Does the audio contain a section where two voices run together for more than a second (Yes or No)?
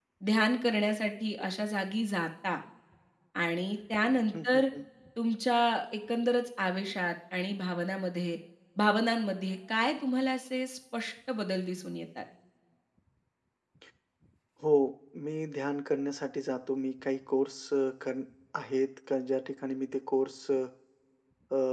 No